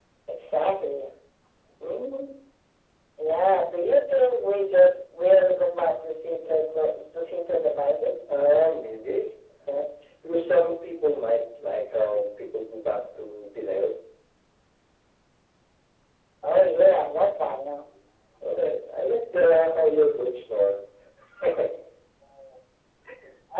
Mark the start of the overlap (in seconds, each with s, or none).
none